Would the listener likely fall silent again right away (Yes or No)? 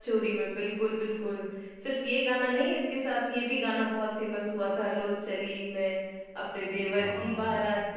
Yes